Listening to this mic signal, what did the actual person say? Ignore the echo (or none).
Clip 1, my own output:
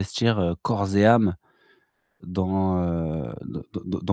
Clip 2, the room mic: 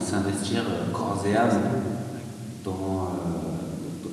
ouais, c'est quelque chose d'assez nouveau, d'accord.